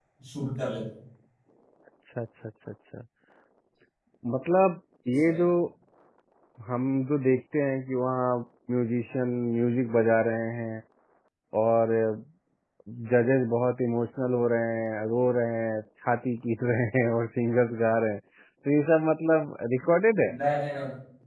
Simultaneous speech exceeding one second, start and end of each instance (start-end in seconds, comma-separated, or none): none